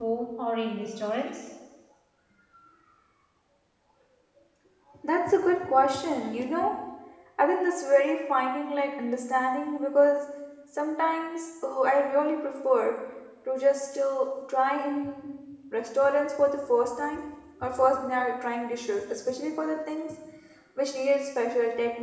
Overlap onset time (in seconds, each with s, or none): none